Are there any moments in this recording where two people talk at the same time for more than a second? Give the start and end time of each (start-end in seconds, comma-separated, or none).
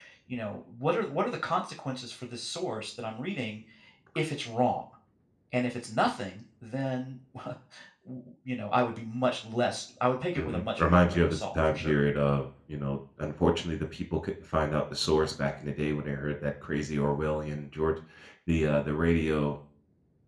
10.3-12.0